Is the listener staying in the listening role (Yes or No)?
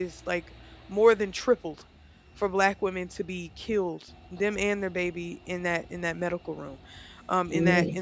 Yes